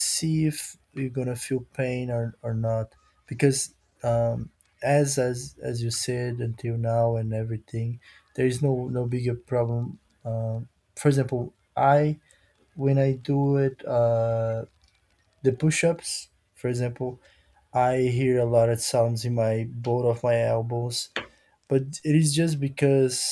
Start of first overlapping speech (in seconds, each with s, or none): none